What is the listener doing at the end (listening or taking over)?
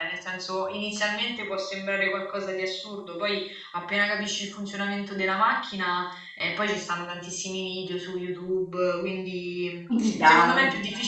listening